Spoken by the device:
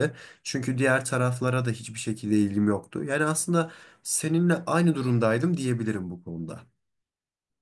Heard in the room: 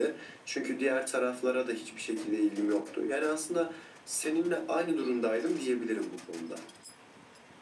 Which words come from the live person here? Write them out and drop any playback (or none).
none